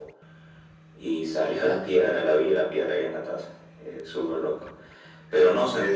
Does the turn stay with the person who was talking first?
Yes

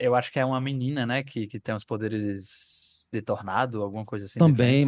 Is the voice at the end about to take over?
Yes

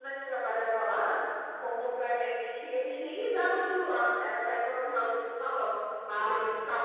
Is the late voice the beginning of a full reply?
No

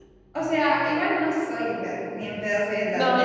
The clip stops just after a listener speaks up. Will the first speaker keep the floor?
No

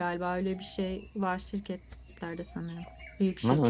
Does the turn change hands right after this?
Yes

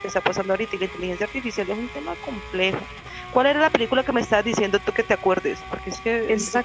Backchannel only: No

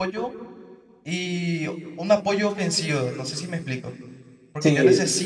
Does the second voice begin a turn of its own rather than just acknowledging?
No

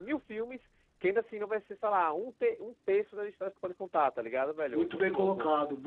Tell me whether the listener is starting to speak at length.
Yes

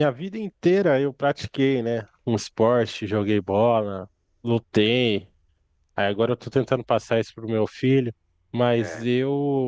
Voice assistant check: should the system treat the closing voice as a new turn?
No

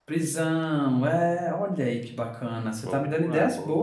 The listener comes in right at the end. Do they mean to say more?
Yes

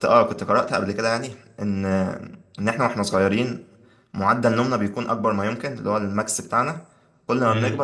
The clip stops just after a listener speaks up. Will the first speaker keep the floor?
Yes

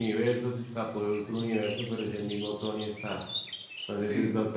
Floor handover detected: No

